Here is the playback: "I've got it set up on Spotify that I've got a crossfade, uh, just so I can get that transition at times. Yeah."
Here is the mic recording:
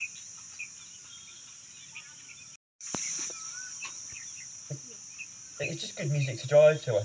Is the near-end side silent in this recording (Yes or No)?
No